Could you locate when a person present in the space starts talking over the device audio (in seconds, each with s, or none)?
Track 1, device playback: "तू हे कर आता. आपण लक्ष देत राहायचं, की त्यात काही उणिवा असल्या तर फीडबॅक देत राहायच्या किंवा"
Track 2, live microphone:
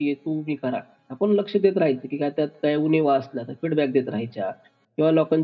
none